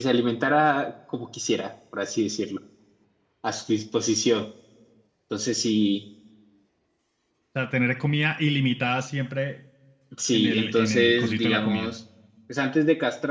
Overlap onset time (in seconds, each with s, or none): 10.3 s